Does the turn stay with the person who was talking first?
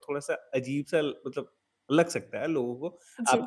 Yes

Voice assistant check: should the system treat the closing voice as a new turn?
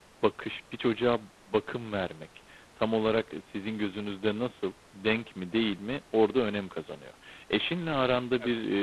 No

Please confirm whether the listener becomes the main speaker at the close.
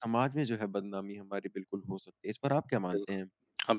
Yes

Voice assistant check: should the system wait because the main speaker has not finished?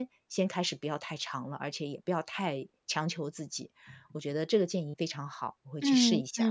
No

